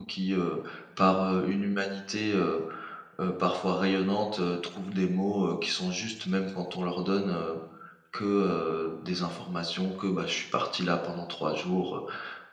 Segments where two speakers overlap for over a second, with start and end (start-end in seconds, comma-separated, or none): none